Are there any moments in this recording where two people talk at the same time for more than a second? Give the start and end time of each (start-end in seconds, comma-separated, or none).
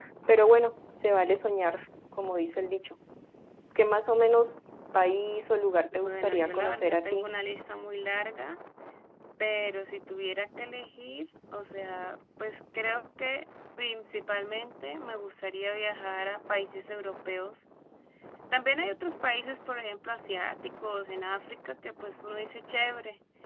5.9-7.3